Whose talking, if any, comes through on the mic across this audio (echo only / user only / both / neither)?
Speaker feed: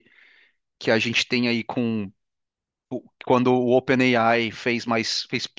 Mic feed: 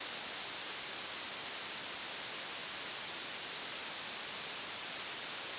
neither